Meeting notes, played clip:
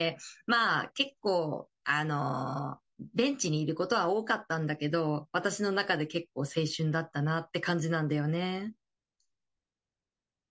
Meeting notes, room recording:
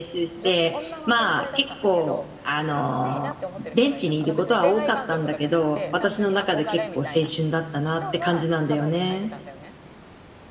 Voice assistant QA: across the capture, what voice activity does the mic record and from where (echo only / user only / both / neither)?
both